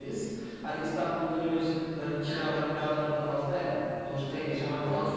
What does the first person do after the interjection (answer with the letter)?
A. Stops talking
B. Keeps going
B